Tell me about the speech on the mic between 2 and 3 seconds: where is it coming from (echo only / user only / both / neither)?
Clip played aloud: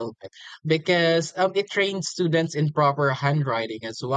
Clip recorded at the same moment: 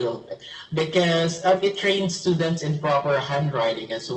echo only